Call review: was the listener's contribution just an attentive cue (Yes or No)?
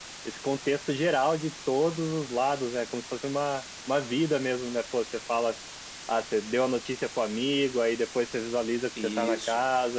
Yes